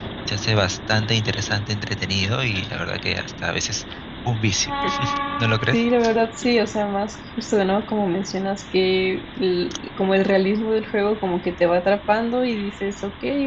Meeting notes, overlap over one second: none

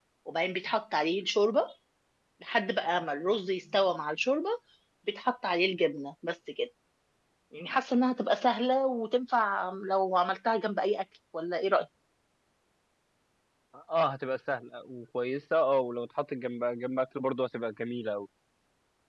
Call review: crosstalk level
none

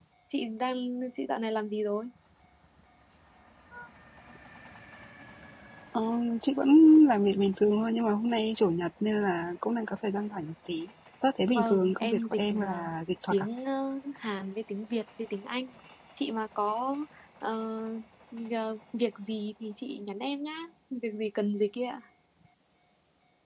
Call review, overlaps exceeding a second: present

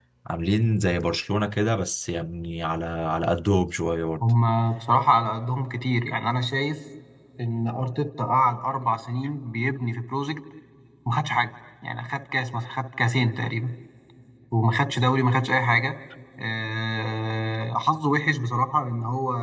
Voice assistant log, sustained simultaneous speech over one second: none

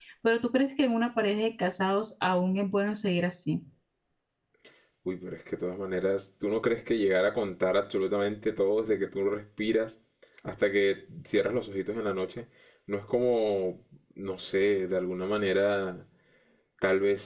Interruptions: none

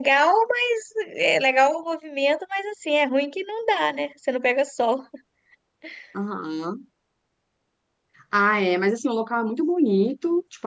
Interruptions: none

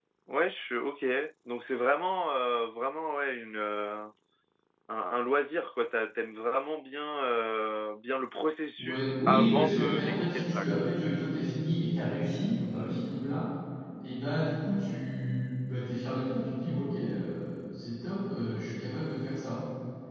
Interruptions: present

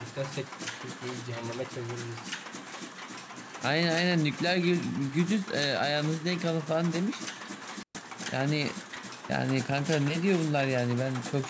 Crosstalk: none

